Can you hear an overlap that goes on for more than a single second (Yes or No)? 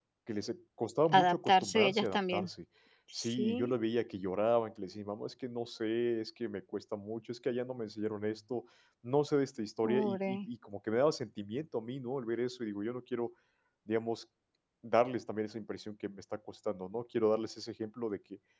Yes